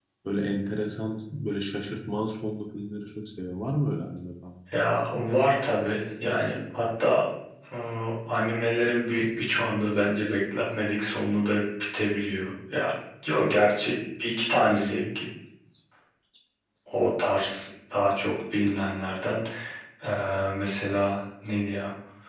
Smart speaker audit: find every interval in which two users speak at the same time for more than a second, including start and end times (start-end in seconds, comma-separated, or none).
none